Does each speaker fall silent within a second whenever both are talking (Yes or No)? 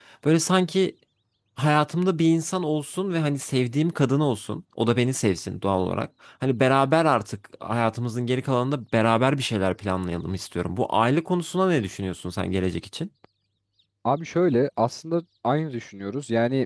Yes